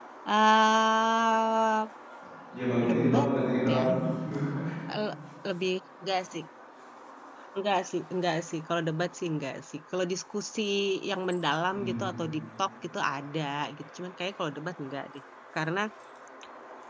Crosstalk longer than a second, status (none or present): none